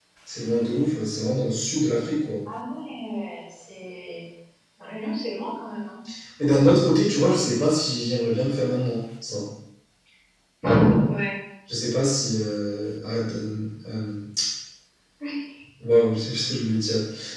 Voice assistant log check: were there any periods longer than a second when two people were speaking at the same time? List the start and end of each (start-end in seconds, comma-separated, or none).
none